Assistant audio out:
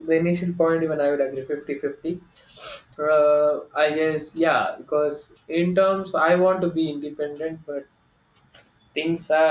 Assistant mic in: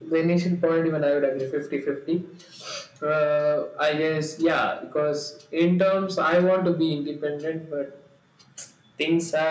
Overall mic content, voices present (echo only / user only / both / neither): echo only